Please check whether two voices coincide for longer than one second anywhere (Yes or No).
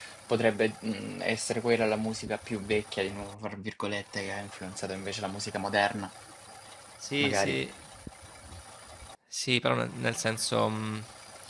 No